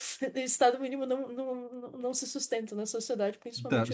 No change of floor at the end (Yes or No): No